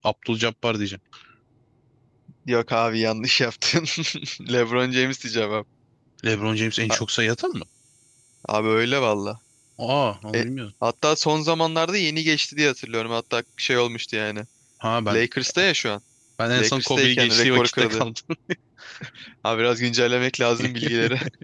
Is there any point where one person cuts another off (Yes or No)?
Yes